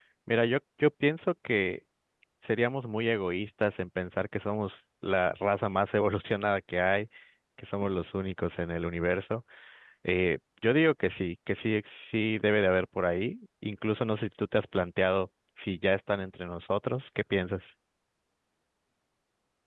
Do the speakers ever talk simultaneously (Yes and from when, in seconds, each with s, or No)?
No